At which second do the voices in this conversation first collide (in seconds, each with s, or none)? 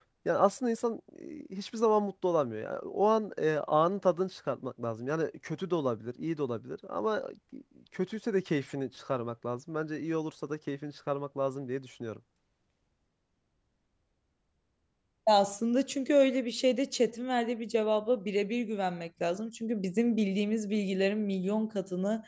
none